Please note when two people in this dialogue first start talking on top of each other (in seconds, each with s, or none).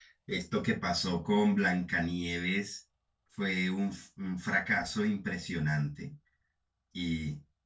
none